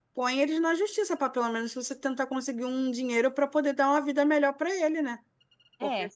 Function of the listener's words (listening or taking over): listening